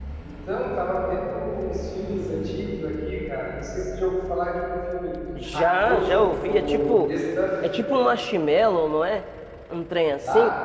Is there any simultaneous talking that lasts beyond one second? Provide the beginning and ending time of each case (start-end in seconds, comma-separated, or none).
5.5-7.1